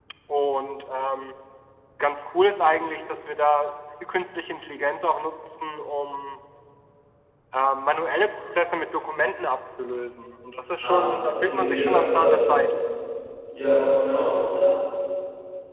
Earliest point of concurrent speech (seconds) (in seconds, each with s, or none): 10.8 s